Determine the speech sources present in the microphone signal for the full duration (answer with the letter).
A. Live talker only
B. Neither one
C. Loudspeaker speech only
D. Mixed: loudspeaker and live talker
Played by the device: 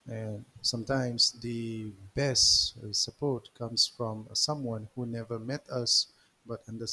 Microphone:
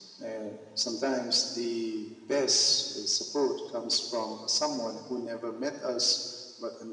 C